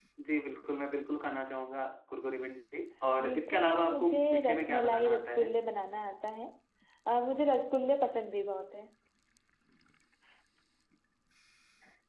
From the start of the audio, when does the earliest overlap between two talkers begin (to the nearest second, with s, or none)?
3 s